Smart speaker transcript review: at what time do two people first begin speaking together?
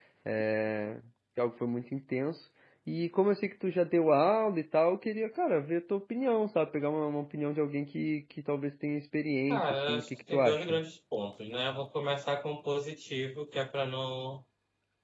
9.5 s

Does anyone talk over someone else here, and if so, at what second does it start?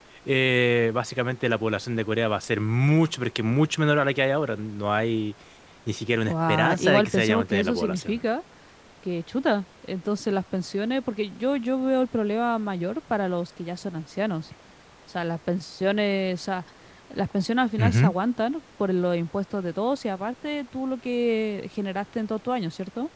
6.3 s

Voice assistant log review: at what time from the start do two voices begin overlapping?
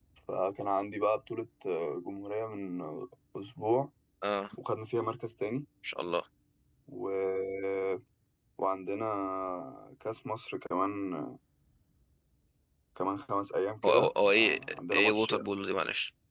13.8 s

